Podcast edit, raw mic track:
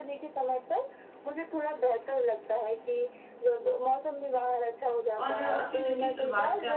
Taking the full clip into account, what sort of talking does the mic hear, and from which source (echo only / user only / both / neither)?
both